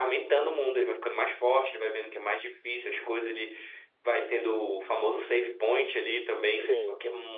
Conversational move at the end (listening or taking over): listening